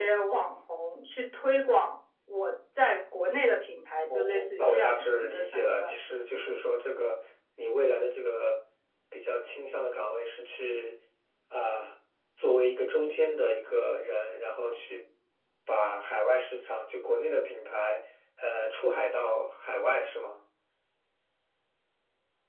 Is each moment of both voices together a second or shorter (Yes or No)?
No